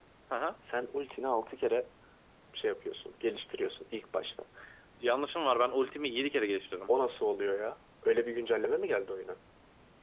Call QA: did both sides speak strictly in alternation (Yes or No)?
Yes